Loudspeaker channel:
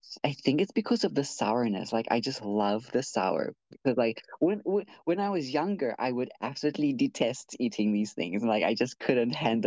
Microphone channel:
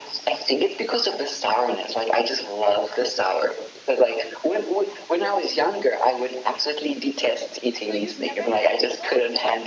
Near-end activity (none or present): present